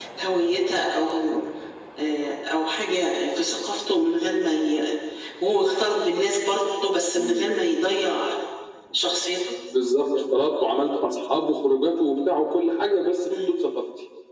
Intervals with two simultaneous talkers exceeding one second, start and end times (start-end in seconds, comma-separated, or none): none